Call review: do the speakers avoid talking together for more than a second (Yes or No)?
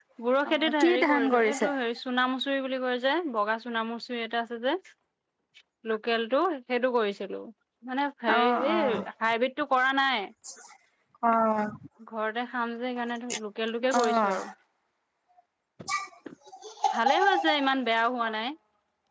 No